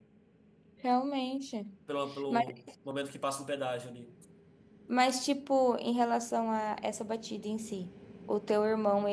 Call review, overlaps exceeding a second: none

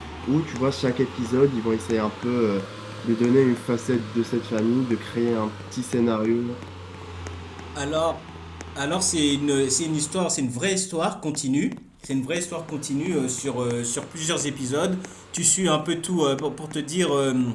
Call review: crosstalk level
none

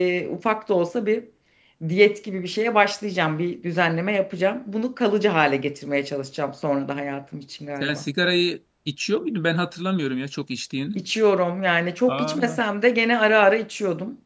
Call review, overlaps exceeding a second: none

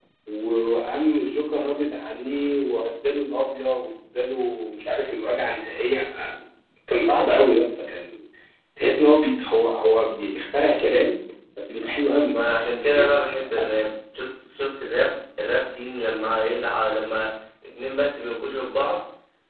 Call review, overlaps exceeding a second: none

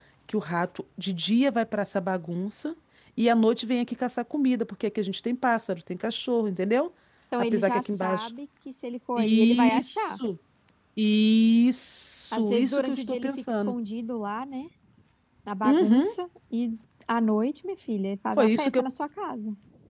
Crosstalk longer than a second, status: present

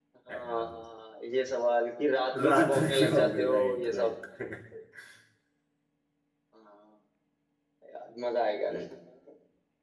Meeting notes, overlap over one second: present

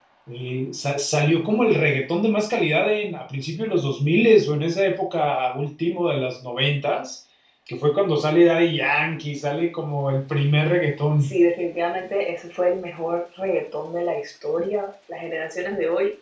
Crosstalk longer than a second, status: none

